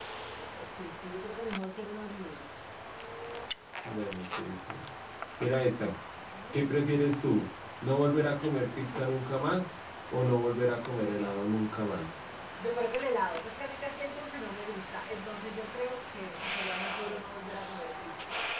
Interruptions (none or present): none